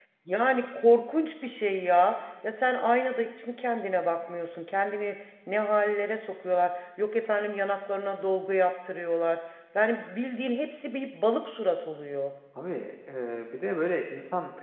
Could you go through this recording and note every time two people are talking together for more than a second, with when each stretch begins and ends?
none

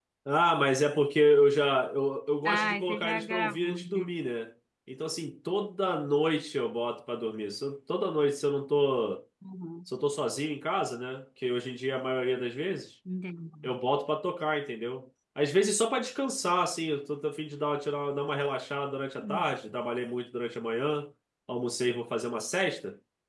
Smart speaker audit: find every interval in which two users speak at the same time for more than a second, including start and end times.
2.5-4.1

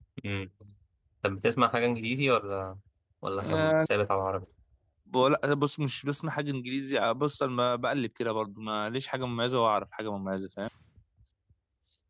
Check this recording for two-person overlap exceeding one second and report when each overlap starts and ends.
none

